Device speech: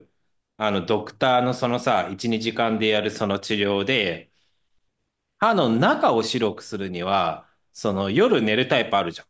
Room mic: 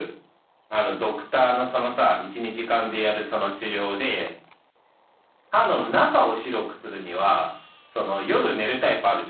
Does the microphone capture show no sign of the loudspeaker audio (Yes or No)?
No